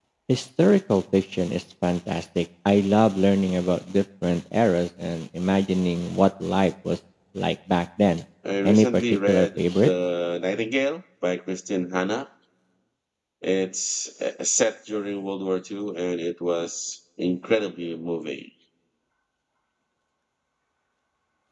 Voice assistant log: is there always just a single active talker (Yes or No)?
No